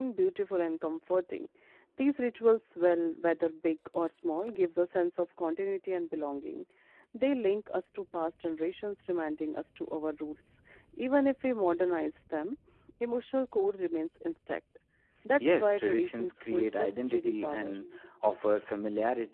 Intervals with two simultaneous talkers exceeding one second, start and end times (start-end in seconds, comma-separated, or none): 15.4-17.7